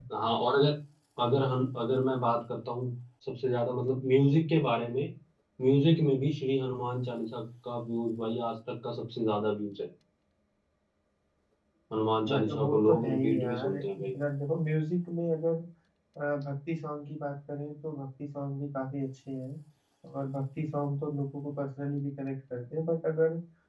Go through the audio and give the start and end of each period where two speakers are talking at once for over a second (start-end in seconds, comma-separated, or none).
12.2-14.1